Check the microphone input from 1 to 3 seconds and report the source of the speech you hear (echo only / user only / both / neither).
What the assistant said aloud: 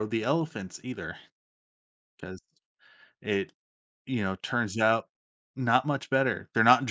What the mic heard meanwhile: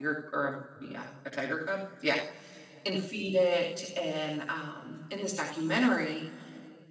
user only